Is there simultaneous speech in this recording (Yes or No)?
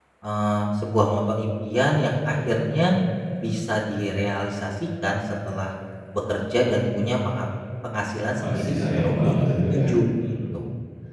Yes